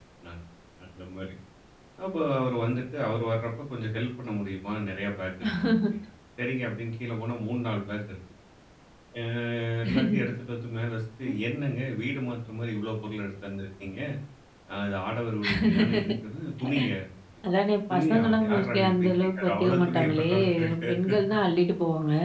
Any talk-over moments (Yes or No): Yes